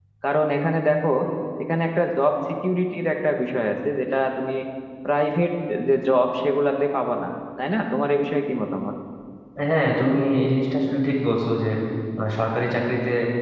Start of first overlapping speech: none

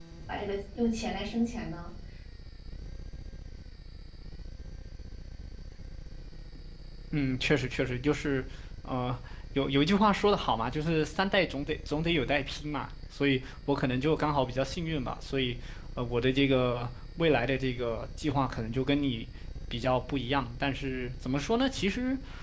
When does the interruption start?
none

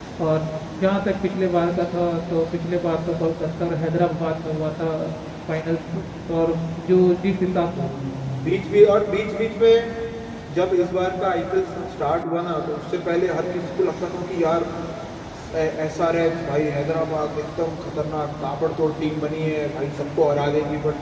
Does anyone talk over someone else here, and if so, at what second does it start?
none

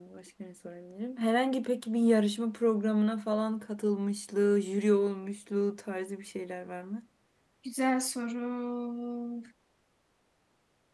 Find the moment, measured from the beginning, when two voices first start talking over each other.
none

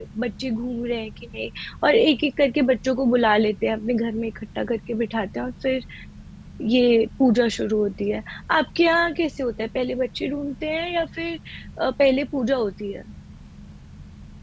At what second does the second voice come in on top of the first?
none

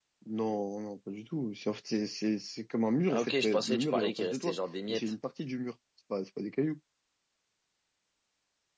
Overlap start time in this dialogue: 3.1 s

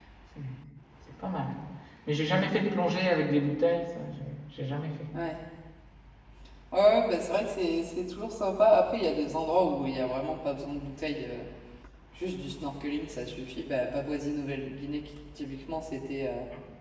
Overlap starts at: none

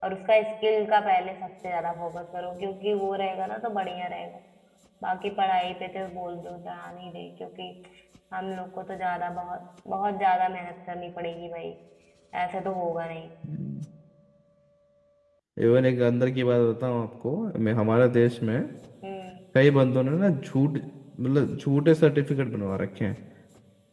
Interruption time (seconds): none

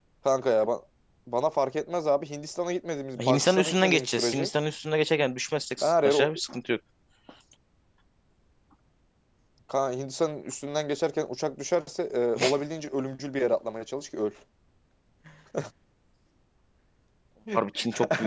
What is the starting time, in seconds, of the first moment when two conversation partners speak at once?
3.3 s

